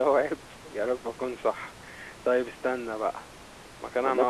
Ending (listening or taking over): taking over